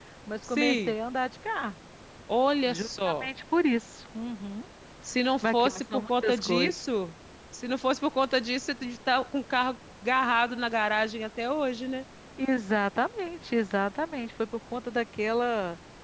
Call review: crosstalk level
present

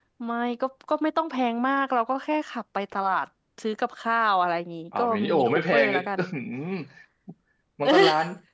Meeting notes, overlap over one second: present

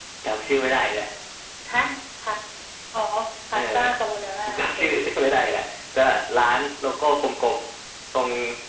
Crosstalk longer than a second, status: none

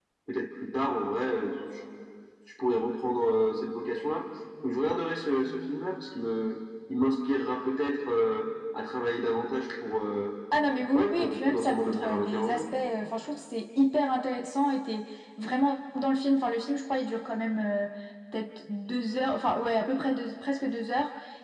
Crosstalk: present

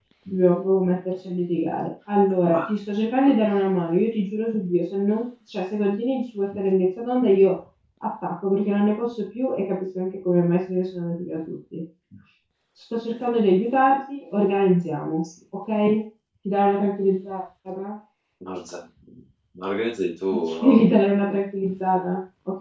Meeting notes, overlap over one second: none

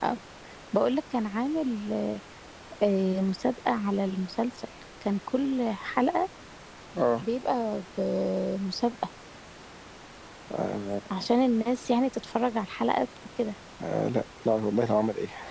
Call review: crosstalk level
none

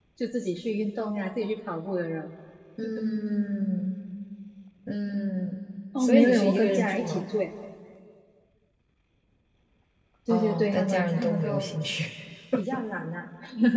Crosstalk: present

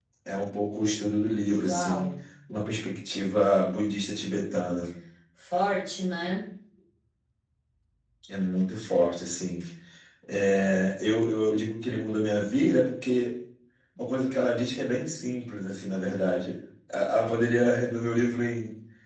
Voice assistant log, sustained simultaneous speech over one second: none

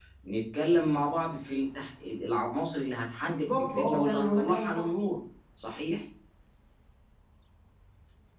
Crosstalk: present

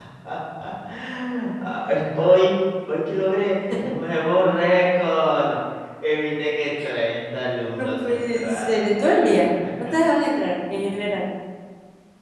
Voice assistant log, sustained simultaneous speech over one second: present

